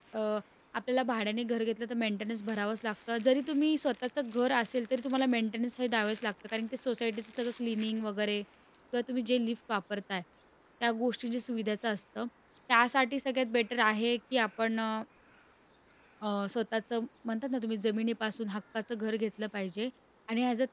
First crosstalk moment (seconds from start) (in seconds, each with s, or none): none